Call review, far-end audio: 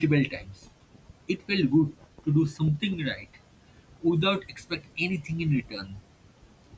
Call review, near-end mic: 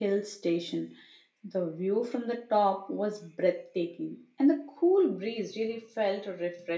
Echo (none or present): none